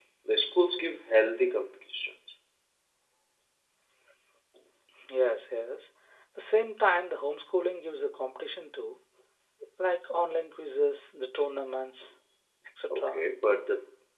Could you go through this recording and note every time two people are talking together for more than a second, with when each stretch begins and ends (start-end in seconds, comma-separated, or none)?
none